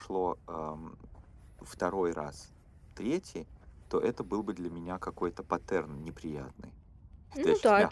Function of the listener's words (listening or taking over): taking over